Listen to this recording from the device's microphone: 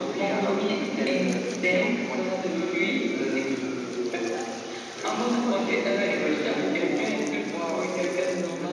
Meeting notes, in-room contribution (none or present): none